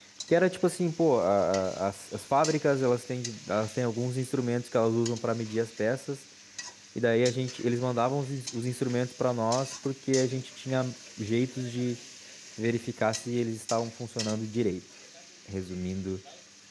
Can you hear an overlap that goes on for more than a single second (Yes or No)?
No